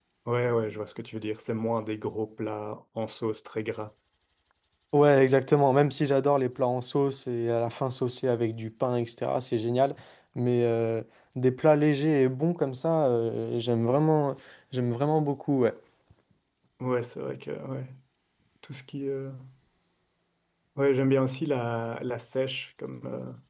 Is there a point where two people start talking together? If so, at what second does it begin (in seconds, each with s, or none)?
none